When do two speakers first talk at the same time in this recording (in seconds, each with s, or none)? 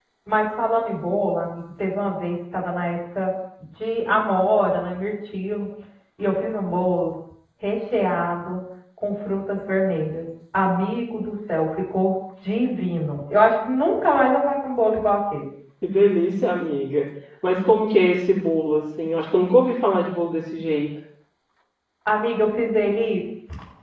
none